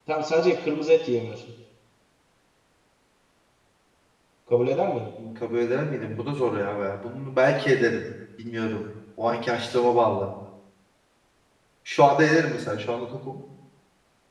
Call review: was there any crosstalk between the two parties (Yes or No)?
No